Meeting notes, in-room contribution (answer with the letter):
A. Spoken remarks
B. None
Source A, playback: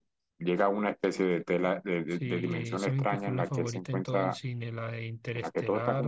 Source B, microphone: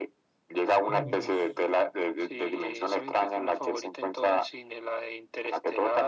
A